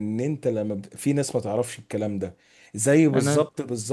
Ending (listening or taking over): listening